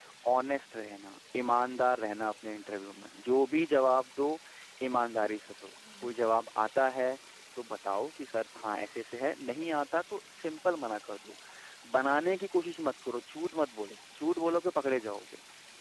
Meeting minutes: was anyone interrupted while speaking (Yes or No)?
No